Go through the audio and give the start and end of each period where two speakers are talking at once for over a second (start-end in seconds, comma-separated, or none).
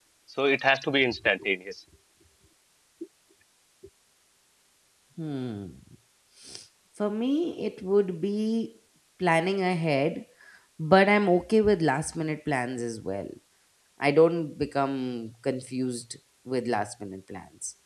none